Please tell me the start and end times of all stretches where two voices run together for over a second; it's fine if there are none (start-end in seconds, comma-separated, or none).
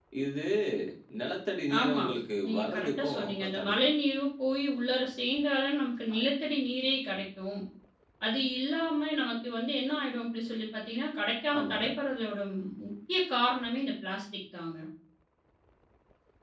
2.5-3.9